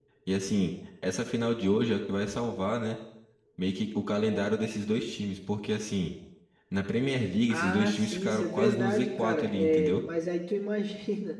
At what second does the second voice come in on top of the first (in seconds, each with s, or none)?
7.5 s